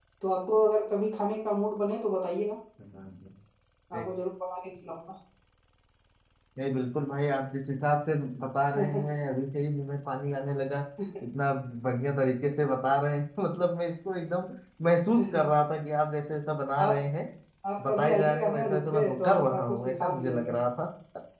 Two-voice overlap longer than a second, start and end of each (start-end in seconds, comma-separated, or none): 17.9-20.6